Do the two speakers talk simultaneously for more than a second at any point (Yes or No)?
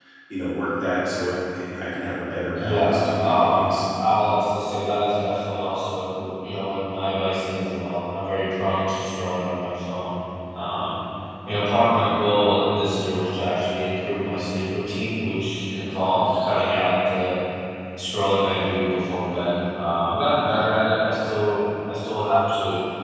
Yes